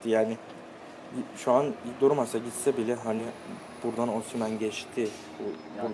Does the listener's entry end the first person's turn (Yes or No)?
Yes